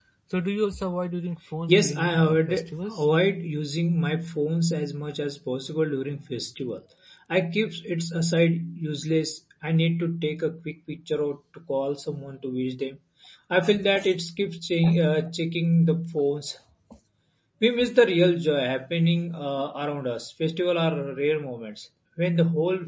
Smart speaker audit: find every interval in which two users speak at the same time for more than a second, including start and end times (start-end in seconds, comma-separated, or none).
1.7-3.0